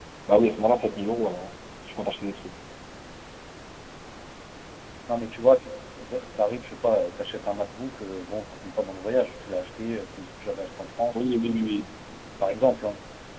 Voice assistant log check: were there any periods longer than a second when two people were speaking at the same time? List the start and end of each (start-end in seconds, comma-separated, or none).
none